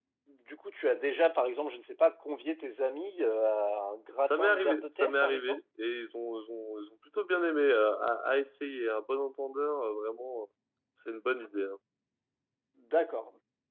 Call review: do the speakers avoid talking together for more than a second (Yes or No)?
No